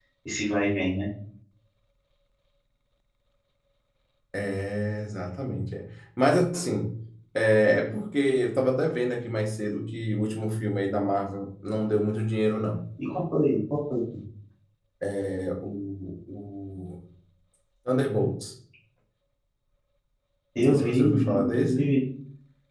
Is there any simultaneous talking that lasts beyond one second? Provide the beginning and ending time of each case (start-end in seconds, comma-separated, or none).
20.6-21.9